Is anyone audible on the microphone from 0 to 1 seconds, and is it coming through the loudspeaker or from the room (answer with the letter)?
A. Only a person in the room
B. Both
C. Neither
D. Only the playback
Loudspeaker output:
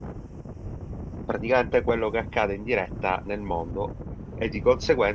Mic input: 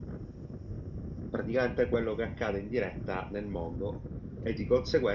C